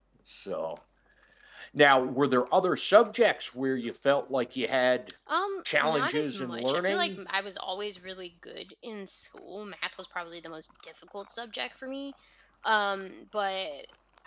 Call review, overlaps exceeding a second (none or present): present